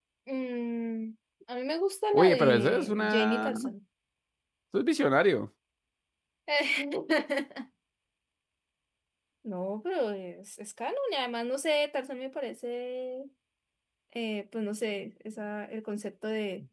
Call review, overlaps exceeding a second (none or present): present